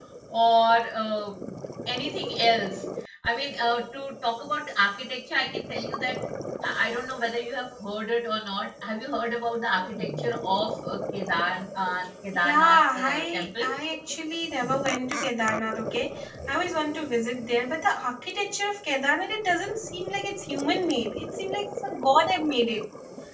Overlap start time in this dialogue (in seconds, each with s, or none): 12.3 s